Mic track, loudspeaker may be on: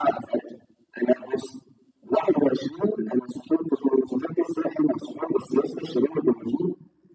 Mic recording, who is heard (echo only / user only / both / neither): echo only